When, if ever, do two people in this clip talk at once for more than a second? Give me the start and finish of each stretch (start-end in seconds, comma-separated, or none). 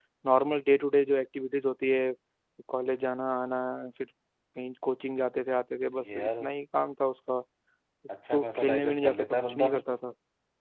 8.3-9.8